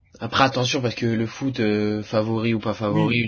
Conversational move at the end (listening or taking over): taking over